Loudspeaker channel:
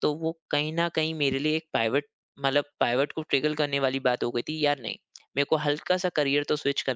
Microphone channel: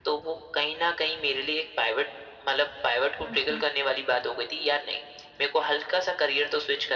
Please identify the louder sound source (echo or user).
echo